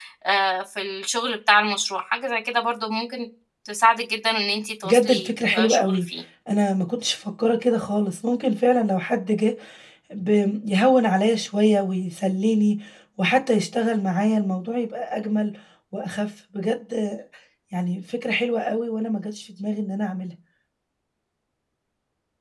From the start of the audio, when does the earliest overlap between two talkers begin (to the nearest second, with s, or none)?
5 s